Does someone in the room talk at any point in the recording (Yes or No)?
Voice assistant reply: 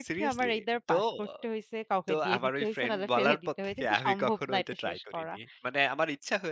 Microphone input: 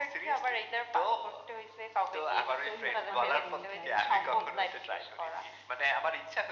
Yes